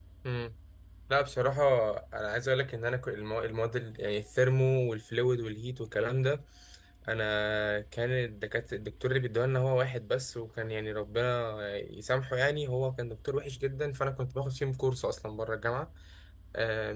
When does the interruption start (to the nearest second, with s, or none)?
none